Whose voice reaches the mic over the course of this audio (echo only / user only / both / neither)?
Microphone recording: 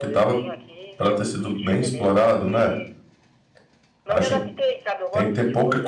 both